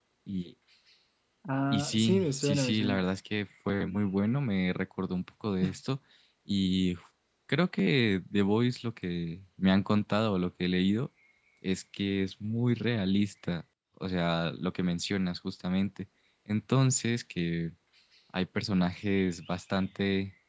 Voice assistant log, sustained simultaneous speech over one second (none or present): present